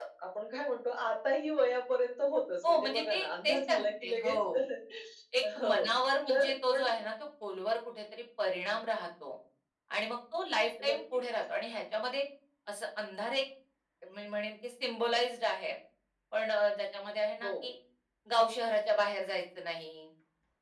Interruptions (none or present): present